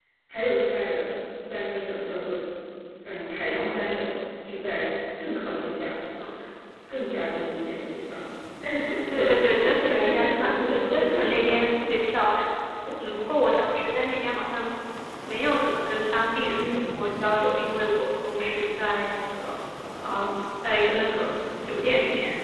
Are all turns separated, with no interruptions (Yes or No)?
No